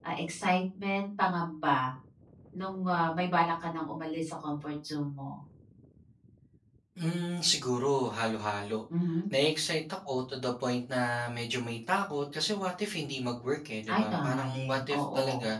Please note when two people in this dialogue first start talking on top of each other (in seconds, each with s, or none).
13.8 s